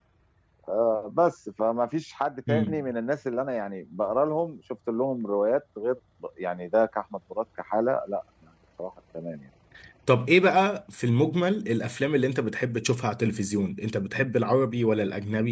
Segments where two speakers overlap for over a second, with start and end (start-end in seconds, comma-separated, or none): none